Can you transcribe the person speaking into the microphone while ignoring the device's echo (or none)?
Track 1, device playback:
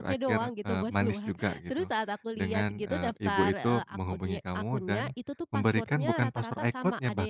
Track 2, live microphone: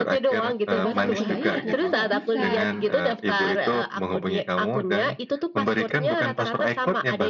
Nah pas aku cobain ternyata nggak bisa.